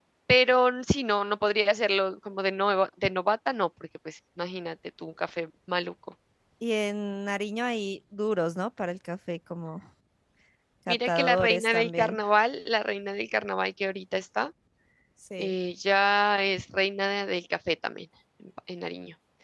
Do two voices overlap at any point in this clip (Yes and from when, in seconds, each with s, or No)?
Yes, from 10.9 s